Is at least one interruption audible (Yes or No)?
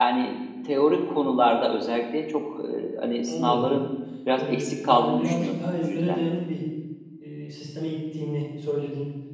Yes